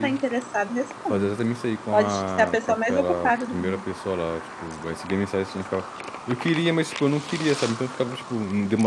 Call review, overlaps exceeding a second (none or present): present